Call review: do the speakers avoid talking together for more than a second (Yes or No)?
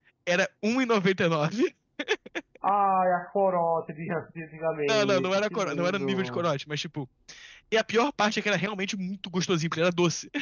No